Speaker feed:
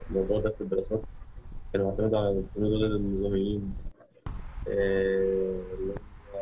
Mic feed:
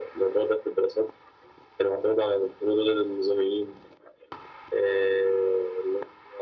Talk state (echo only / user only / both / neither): echo only